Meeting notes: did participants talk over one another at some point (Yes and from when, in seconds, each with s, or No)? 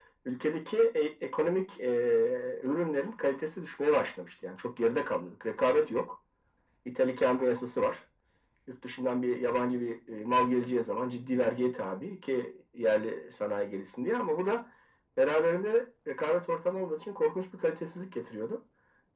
No